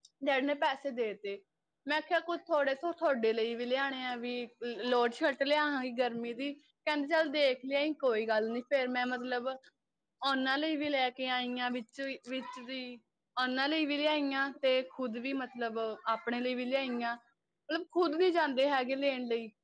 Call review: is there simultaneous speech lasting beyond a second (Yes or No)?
No